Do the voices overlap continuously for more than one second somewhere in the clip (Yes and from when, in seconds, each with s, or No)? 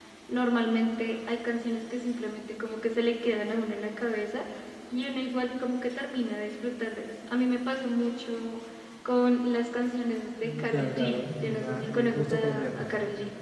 Yes, from 10.4 s